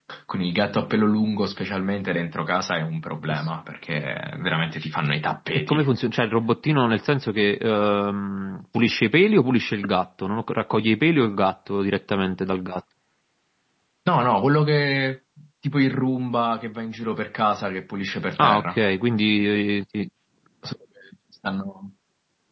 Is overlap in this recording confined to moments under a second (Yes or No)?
Yes